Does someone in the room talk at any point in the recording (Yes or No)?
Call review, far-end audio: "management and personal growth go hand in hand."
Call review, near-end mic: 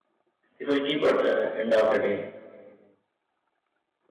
Yes